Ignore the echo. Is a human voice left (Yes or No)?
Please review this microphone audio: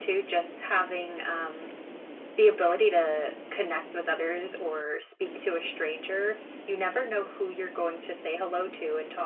No